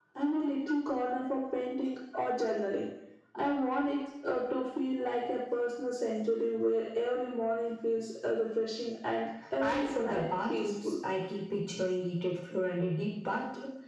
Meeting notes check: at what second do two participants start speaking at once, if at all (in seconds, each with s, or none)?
9.6 s